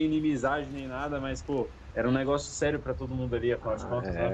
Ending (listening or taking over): taking over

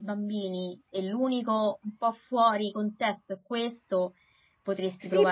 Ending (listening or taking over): taking over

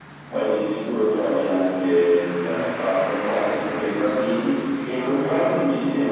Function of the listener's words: listening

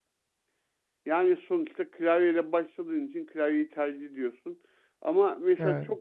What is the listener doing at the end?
listening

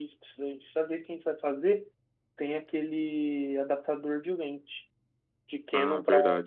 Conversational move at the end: listening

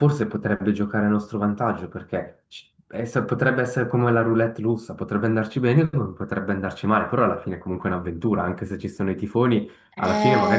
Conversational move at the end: taking over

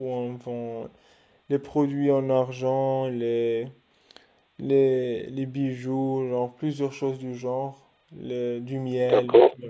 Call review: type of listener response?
taking over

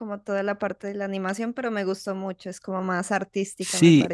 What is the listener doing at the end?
taking over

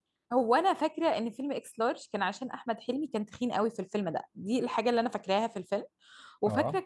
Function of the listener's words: listening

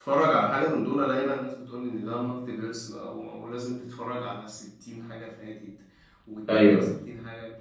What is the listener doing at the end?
listening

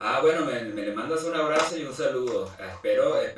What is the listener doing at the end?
listening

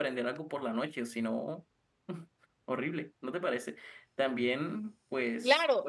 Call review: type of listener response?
taking over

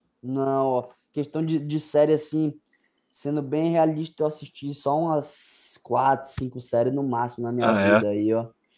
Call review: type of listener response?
listening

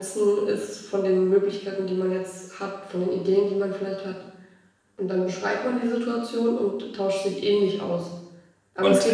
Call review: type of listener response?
listening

